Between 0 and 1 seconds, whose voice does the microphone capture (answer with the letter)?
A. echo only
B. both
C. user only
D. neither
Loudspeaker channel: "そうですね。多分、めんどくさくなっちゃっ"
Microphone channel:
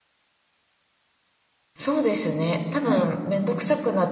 D